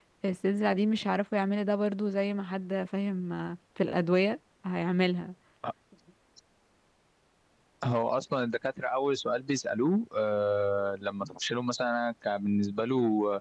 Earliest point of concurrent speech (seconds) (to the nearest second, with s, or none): none